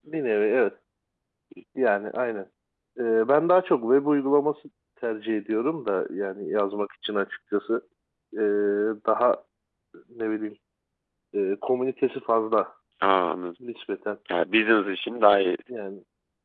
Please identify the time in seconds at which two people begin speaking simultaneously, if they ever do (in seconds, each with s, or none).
none